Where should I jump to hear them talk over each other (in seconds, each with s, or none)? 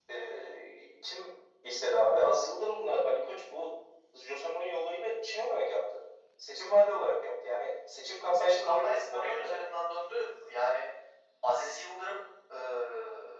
8.3 s